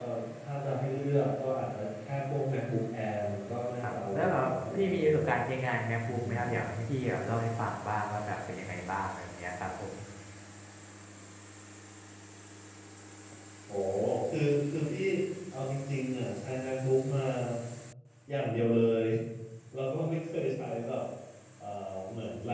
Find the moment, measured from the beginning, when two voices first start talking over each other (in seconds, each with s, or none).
3.8 s